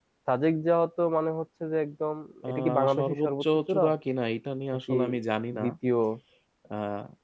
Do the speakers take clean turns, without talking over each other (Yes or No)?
No